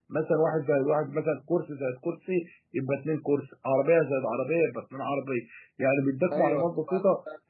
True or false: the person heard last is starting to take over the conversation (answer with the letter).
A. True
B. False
B